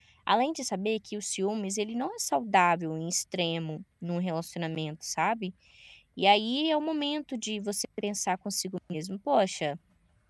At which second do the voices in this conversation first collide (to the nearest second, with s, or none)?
none